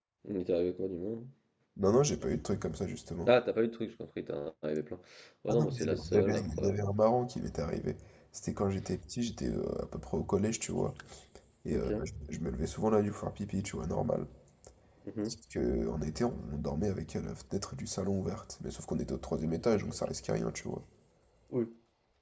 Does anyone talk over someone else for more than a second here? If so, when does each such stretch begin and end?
5.5-6.7

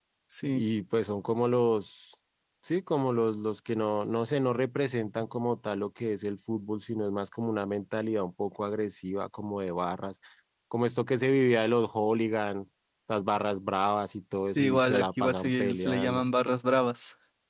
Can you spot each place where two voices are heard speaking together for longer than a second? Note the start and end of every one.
14.6-16.2

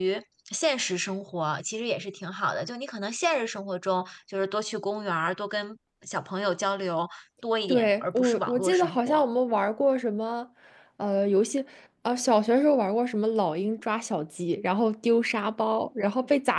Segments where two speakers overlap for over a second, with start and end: 7.7-9.2

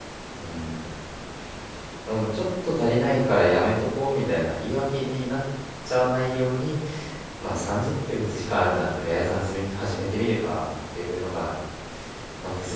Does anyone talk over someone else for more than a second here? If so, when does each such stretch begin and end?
none

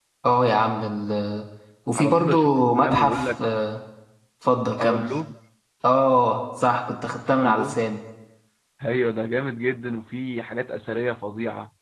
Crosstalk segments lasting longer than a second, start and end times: 2.0-3.4

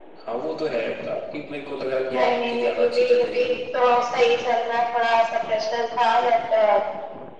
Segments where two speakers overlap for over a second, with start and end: 2.1-3.6

